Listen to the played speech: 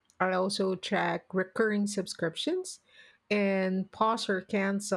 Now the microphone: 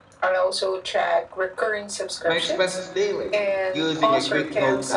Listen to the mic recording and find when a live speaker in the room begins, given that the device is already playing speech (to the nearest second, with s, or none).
2 s